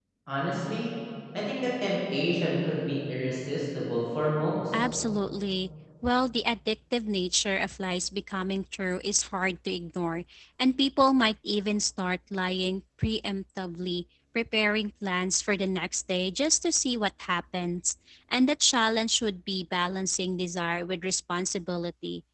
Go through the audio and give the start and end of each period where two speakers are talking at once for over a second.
none

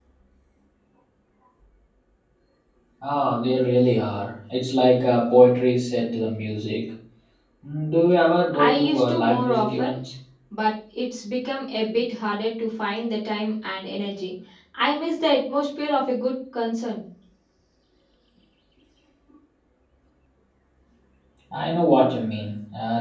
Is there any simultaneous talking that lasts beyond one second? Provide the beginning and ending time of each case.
8.5-10.0

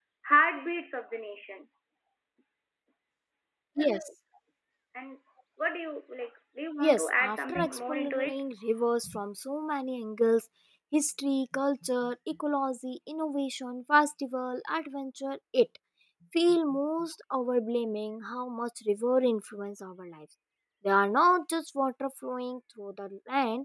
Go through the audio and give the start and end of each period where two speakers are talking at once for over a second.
6.8-8.4

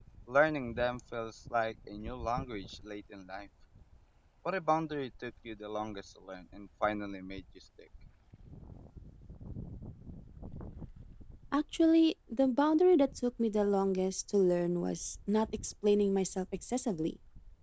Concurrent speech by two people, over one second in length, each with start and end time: none

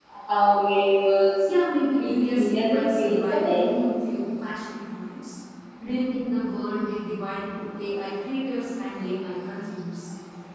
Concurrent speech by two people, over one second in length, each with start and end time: 2.0-3.7

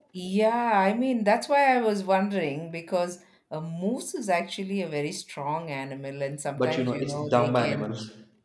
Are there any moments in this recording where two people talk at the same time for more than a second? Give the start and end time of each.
6.6-7.9

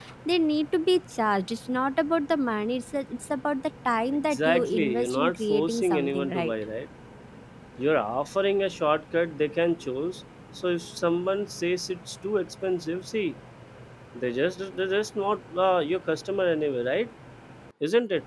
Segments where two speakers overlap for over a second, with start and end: 4.1-6.5

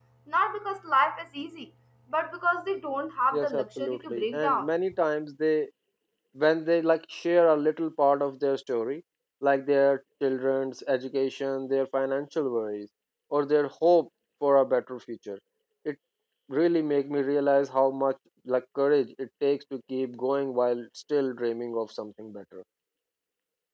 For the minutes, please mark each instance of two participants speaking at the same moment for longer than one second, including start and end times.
3.3-4.7

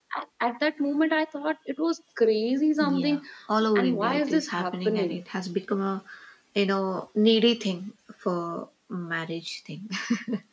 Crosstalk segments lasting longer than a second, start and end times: 3.8-5.2

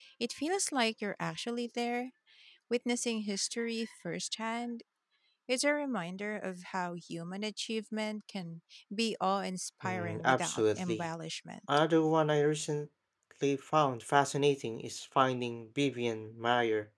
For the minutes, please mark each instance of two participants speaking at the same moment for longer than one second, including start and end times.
9.8-11.0

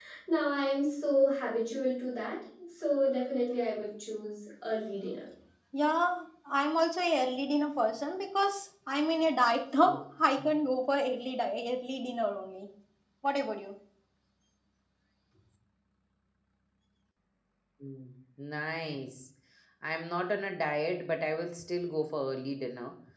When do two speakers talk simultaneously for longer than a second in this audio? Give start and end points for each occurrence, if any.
none

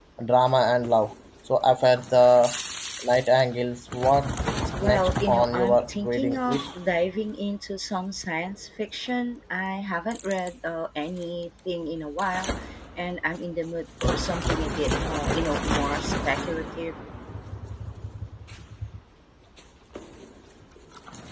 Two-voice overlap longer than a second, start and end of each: 4.8-6.6

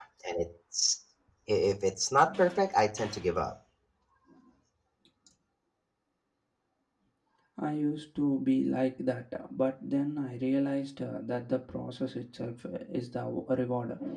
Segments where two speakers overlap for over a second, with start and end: none

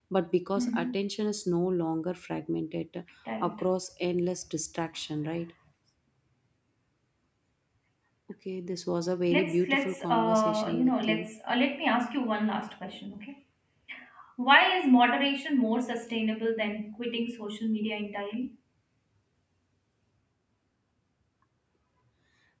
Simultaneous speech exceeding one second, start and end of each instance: 9.3-11.3

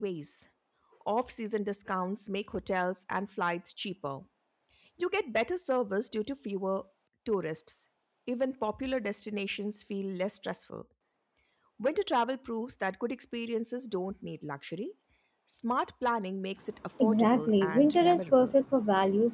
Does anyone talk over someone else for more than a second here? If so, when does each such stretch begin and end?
17.0-18.5

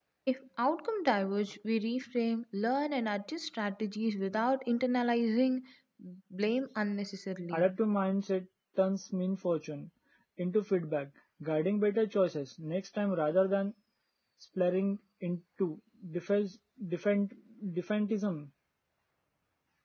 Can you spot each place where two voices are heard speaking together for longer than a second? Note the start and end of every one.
none

